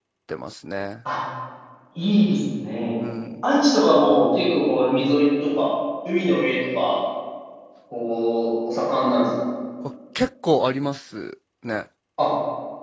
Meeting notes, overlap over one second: none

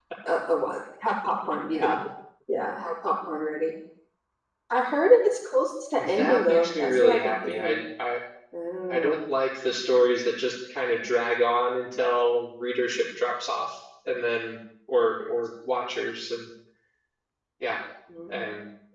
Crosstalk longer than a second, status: present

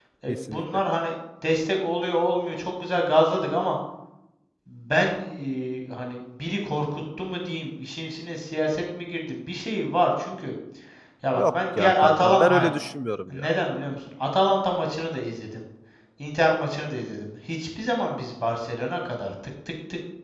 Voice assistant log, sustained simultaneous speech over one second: present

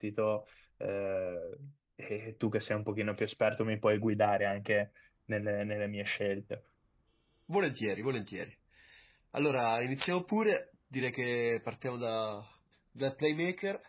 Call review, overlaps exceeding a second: none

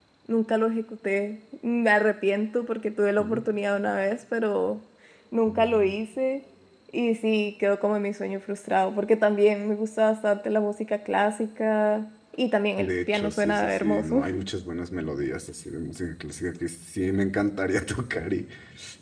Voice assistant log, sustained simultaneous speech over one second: present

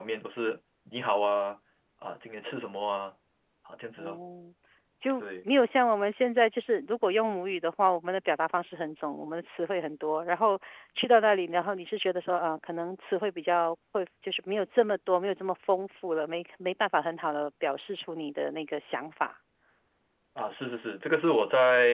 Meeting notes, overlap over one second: none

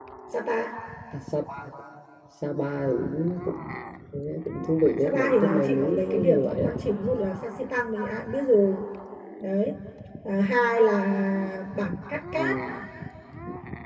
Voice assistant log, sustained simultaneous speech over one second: present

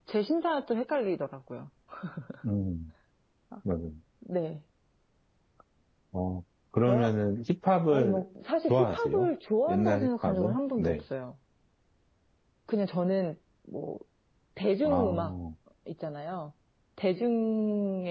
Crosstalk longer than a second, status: present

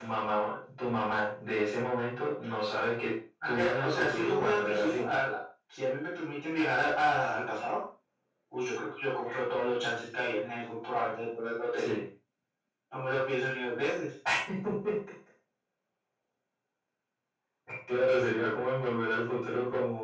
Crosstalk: present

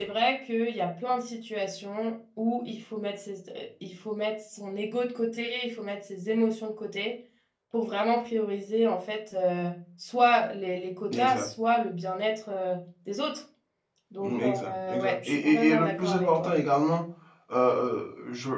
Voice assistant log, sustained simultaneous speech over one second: present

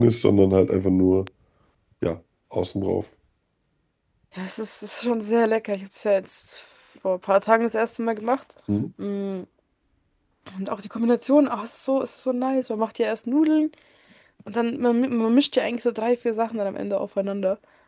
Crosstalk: none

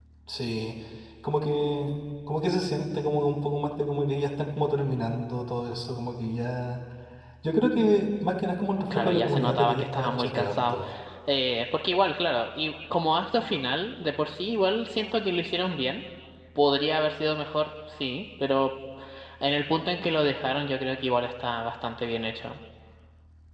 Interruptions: present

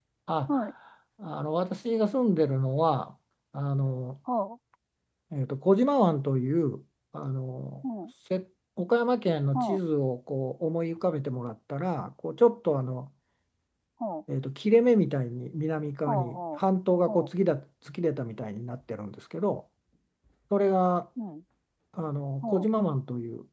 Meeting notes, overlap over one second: none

